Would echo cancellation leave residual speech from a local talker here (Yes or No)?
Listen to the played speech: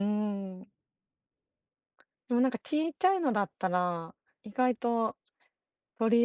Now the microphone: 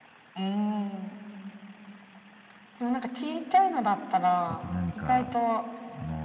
Yes